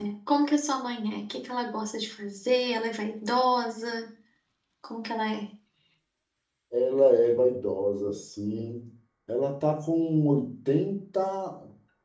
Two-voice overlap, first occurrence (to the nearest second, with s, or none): none